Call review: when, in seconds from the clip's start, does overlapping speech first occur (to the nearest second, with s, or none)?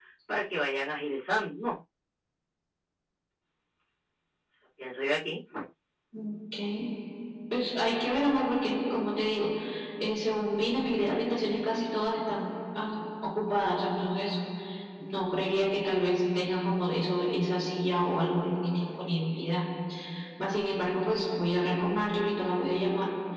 none